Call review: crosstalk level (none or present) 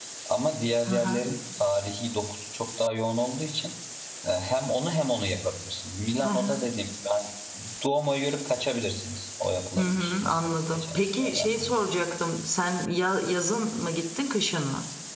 present